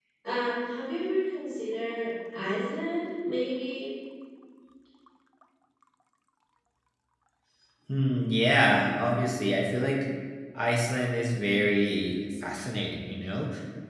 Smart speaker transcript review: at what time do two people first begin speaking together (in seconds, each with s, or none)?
none